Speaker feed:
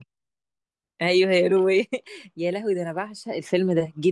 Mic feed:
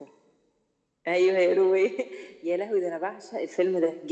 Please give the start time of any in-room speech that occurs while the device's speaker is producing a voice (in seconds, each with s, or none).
none